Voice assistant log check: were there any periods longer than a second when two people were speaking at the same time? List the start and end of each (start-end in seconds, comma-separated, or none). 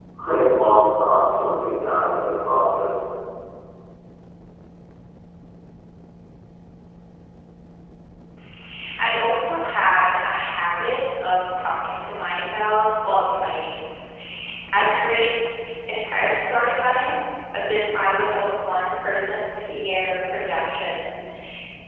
none